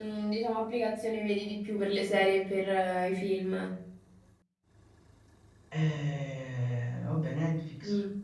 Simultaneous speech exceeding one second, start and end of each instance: none

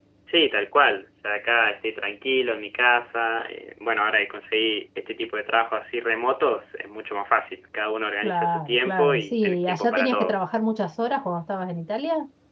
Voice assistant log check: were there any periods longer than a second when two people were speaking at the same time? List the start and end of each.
8.2-10.3

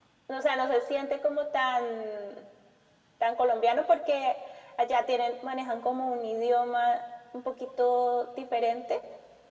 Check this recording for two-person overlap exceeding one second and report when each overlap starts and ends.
none

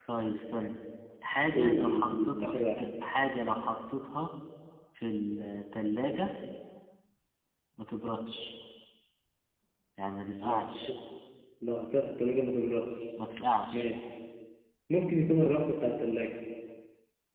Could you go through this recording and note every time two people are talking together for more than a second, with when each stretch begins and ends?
1.5-2.8

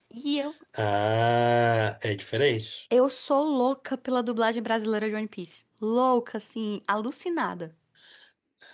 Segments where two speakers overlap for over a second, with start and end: none

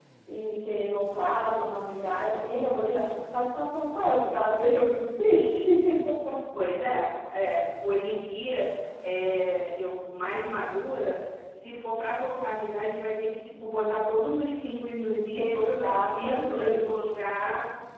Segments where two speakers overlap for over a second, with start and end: 15.3-17.0

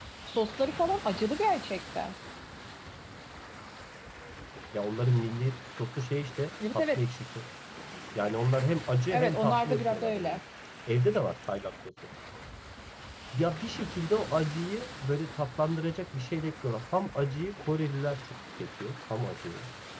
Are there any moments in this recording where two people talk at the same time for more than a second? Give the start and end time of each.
9.1-10.4

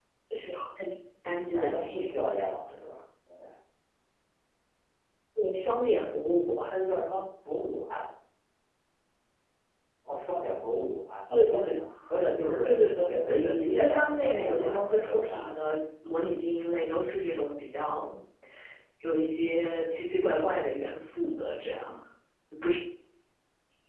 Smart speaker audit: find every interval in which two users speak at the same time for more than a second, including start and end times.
1.5-2.8, 12.6-15.6

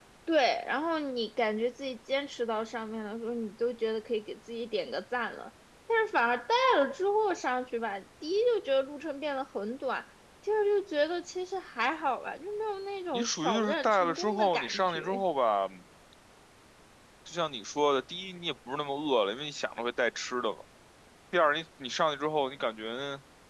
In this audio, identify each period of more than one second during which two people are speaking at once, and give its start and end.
13.1-15.2

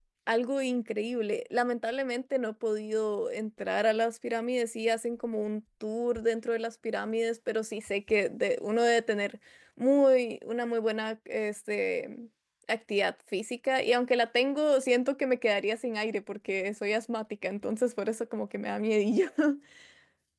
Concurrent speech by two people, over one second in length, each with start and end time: none

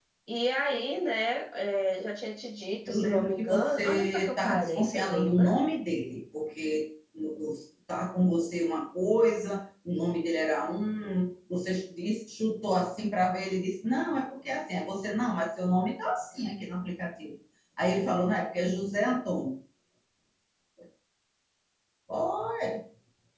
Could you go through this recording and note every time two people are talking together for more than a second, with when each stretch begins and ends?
2.9-5.6

